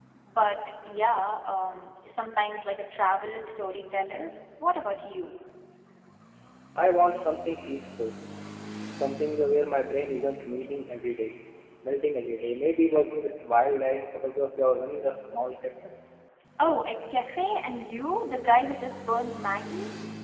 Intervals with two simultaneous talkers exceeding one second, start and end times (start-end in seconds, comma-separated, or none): none